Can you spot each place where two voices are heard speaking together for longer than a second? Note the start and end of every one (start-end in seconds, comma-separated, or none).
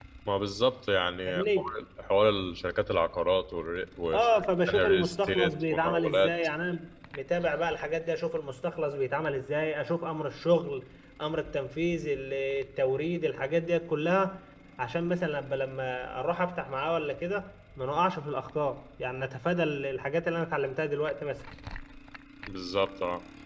4.8-6.3